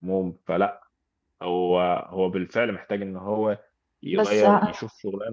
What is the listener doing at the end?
listening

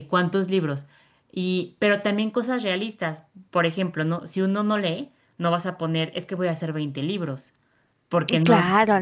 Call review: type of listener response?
taking over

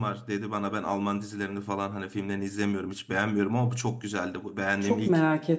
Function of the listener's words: taking over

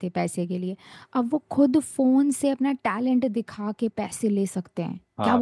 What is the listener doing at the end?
taking over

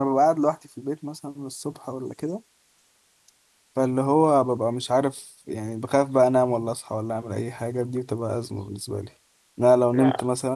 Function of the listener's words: listening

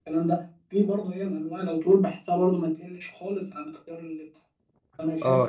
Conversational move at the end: taking over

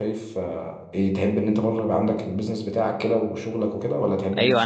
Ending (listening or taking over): taking over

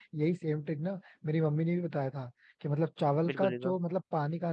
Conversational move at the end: listening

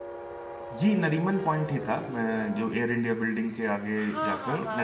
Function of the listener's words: taking over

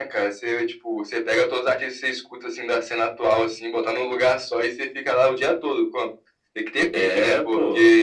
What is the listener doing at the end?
listening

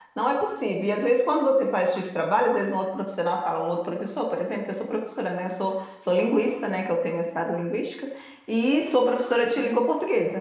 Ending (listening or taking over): listening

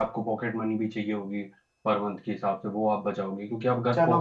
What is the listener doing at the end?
taking over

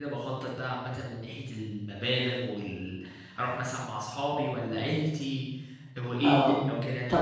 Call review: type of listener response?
taking over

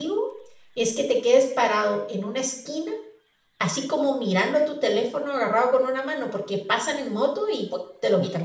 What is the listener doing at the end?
taking over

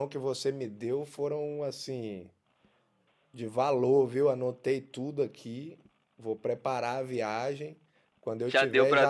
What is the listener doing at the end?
taking over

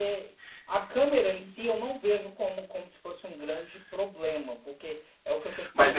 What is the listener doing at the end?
taking over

